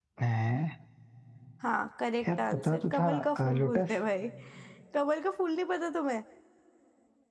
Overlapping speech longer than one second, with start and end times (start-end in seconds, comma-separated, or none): 2.4-4.0